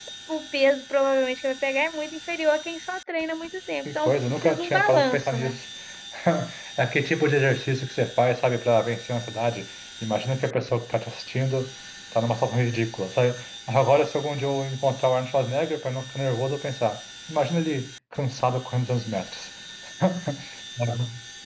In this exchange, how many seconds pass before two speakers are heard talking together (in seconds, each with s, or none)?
3.9 s